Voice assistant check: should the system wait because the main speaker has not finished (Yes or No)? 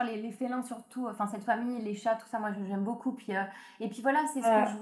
Yes